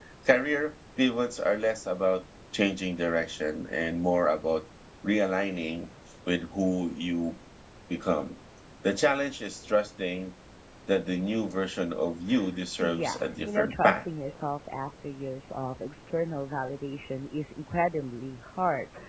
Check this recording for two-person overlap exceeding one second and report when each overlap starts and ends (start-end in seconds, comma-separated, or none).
12.8-14.1